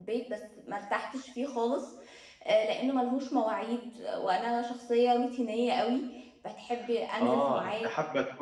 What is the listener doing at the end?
taking over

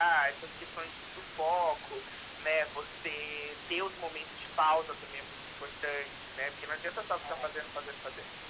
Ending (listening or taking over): listening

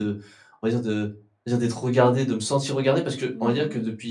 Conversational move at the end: listening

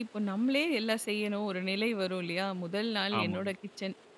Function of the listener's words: listening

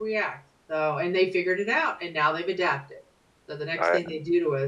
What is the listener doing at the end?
listening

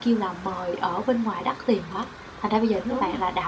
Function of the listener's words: listening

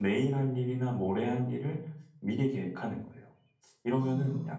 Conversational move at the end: listening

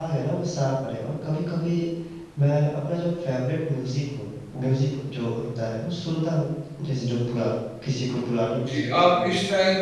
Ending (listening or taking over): taking over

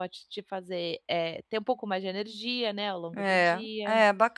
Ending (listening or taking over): taking over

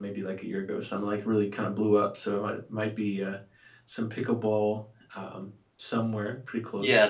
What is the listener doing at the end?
taking over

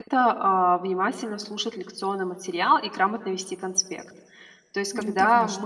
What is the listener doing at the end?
listening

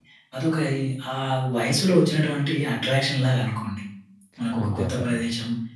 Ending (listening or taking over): listening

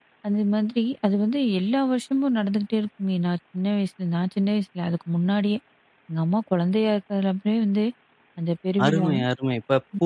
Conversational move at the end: taking over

